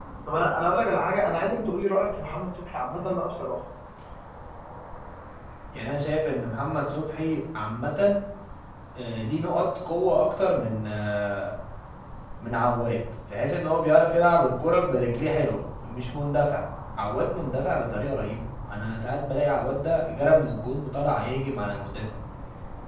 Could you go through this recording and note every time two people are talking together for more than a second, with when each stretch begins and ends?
none

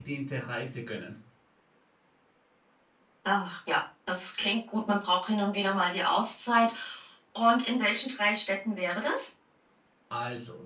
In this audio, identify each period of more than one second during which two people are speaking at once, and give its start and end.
none

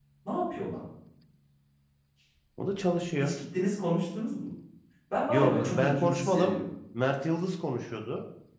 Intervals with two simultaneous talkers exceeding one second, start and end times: 5.3-6.5

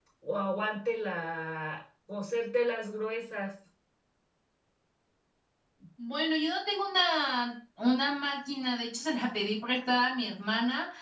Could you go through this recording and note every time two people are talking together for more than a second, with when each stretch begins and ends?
none

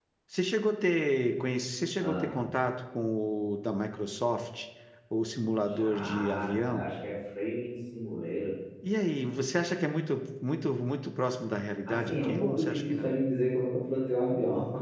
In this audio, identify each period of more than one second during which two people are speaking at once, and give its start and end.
5.6-6.9, 11.9-13.1

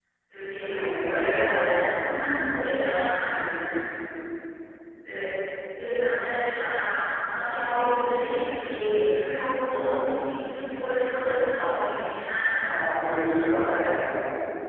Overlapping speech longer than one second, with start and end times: none

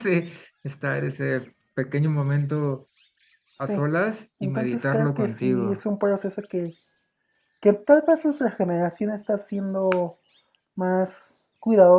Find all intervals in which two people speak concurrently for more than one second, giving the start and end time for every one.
4.4-5.8

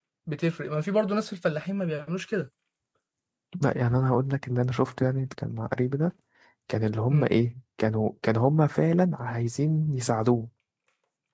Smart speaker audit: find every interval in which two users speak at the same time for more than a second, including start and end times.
none

